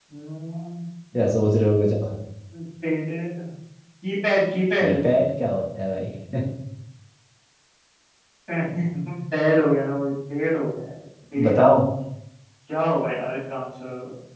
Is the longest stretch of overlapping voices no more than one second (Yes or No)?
Yes